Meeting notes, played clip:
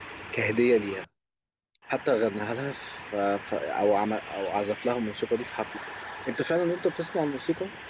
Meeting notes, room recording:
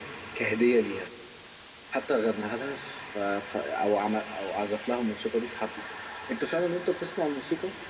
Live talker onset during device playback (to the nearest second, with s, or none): none